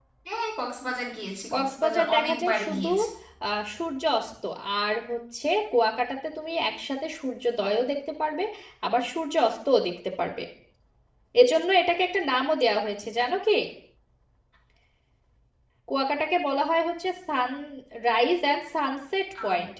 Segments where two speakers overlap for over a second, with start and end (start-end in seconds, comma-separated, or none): 1.5-2.9